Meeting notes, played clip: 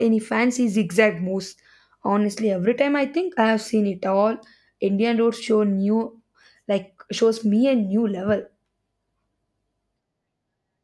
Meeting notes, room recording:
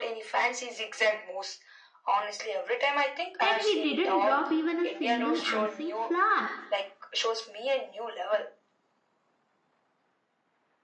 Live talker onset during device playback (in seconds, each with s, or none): 3.4 s